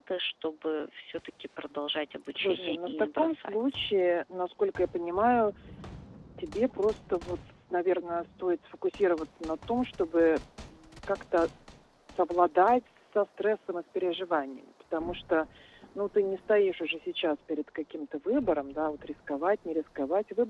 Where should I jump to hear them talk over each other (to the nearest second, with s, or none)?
2 s